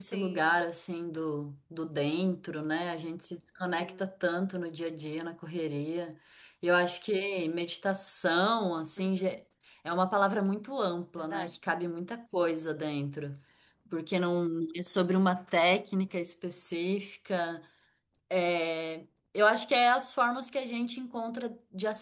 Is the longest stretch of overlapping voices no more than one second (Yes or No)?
Yes